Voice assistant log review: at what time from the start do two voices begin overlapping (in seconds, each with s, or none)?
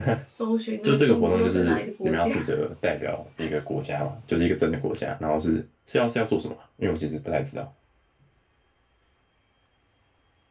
0.8 s